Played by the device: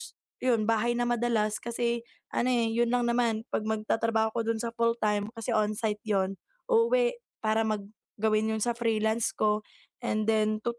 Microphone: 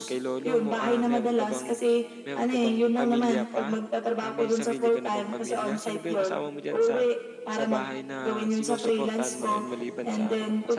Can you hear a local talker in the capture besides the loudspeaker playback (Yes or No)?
Yes